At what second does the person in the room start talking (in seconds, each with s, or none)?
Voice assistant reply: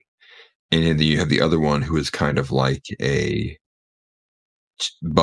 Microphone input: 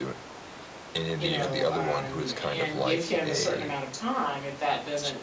1.2 s